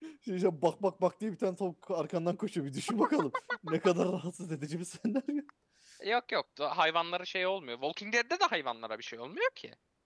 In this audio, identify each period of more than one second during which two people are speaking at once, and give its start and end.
none

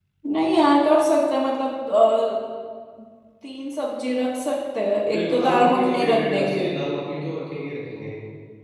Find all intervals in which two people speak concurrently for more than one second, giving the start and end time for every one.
5.1-6.6

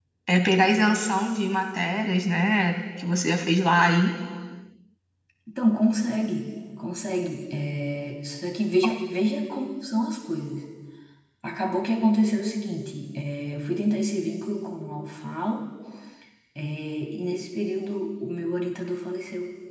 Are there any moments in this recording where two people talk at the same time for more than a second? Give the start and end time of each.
none

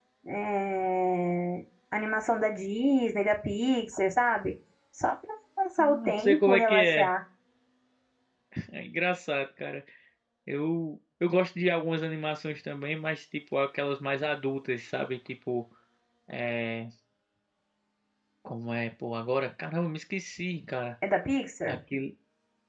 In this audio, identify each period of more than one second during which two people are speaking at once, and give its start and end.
5.8-7.1

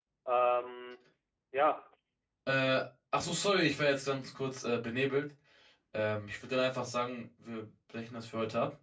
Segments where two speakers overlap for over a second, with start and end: none

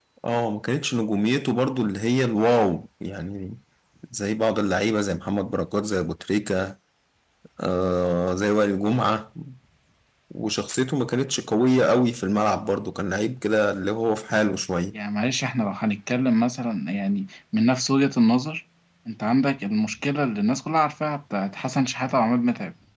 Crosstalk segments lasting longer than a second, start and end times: none

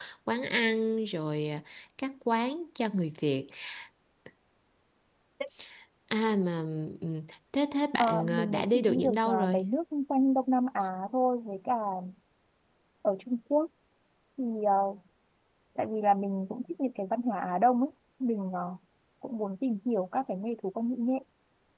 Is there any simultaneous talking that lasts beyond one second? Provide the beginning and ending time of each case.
8.0-9.6

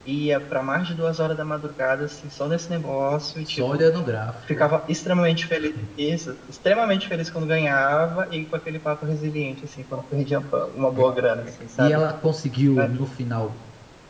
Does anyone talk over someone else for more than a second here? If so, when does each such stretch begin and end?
none

